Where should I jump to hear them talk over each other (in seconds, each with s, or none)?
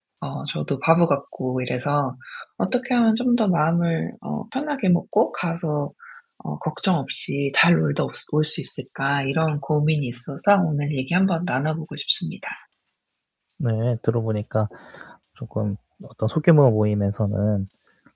none